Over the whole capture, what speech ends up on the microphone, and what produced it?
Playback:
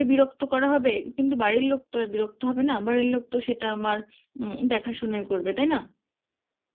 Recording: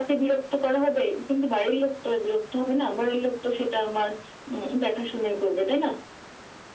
echo only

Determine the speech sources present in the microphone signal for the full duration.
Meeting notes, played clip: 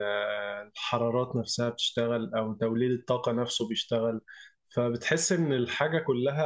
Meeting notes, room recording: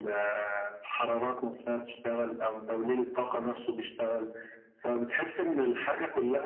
echo only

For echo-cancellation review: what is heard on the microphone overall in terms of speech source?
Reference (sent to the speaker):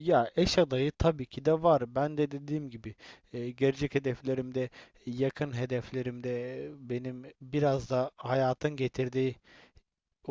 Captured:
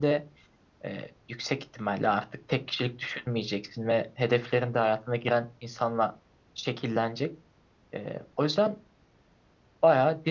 user only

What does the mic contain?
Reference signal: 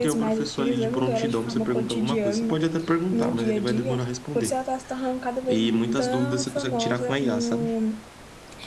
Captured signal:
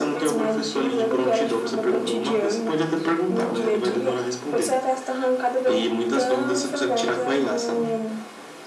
echo only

